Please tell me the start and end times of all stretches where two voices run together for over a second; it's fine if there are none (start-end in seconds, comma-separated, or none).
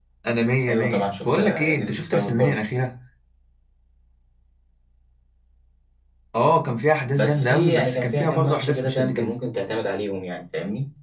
0.7-2.6, 7.2-9.3